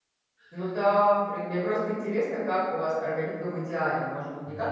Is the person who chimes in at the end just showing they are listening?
Yes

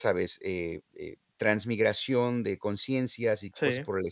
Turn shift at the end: No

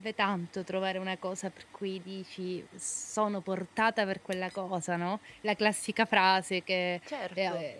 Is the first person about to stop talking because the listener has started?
No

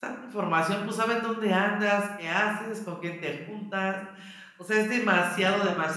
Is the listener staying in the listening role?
Yes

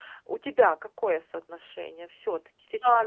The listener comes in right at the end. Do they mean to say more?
Yes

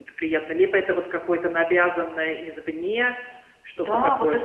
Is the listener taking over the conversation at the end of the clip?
Yes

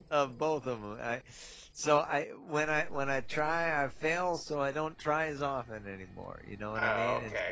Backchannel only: No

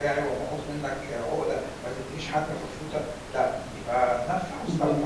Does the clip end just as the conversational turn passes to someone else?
Yes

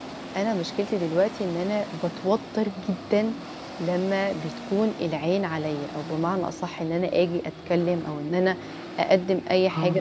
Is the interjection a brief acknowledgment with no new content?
Yes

